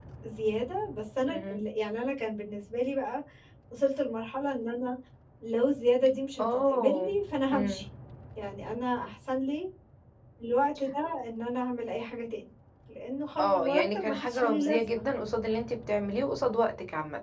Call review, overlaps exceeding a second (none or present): present